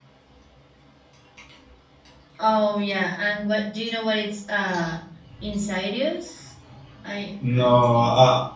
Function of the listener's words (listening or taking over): taking over